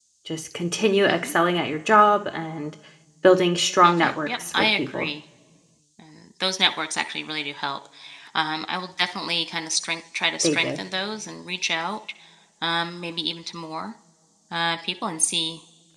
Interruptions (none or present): present